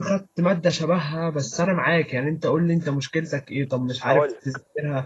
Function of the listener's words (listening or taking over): listening